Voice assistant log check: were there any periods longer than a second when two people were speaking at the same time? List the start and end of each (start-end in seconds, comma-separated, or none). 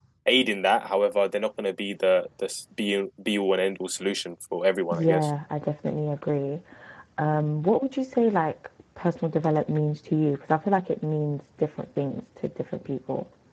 none